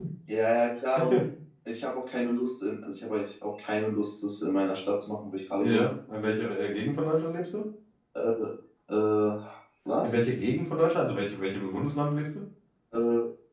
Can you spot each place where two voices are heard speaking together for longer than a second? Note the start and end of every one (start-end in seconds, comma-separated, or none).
none